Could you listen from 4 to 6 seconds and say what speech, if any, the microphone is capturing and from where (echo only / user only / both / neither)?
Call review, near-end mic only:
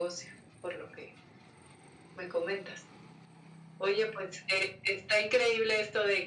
echo only